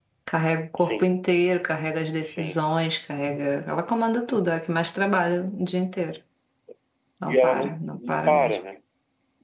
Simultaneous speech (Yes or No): Yes